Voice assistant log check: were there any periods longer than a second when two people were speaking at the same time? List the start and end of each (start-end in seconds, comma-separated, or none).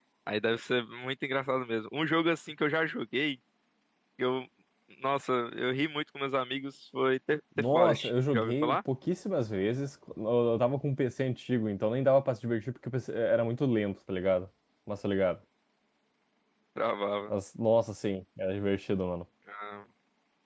7.6-8.8